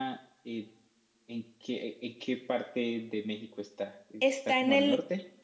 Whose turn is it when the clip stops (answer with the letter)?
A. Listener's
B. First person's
A